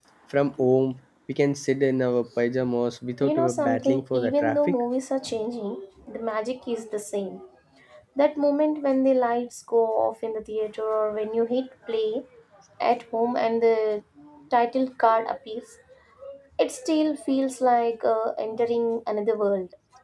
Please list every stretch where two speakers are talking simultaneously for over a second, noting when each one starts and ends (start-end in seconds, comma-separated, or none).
3.2-4.8